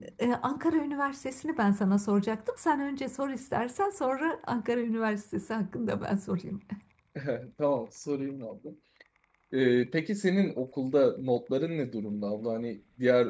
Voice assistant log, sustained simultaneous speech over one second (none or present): none